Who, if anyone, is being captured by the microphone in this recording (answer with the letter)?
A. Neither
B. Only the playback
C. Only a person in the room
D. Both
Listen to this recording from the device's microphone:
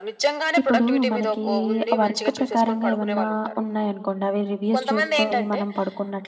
D